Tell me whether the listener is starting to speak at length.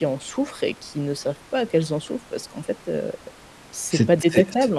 Yes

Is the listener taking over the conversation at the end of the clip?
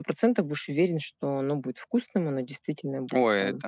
Yes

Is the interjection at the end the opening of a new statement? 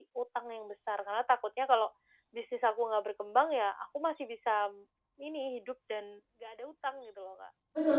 Yes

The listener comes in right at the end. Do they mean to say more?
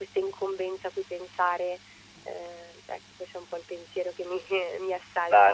Yes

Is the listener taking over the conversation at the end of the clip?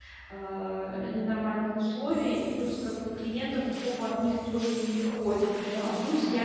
No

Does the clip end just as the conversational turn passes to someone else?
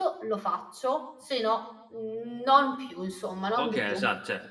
Yes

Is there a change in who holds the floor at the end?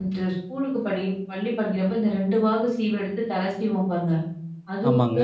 No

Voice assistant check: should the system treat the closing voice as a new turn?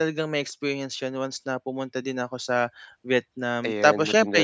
No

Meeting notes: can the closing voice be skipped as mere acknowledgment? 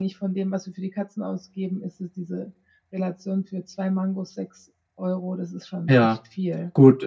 No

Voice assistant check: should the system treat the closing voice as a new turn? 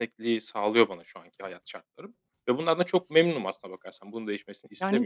Yes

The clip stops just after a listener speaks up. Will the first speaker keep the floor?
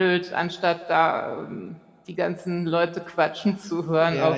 No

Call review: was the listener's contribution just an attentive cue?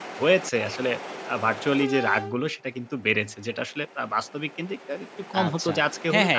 No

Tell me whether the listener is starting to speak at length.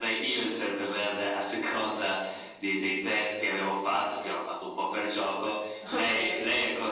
No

